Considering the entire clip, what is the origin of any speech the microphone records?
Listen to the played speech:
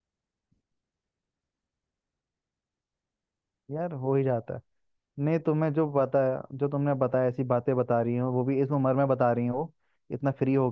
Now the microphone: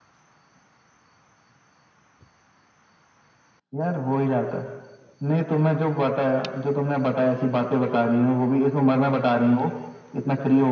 echo only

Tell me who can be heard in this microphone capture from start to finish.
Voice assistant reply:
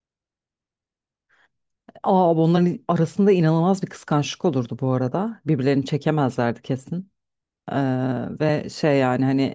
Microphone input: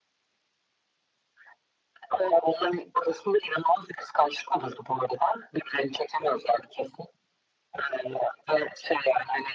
echo only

